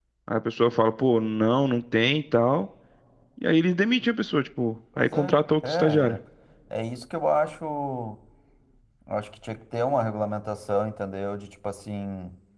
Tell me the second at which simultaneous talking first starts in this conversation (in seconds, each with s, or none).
5.0 s